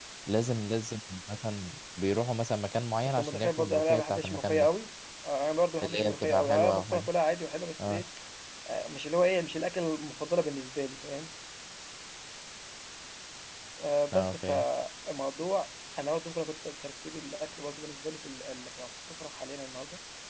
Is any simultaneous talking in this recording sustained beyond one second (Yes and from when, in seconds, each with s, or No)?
Yes, from 3.1 s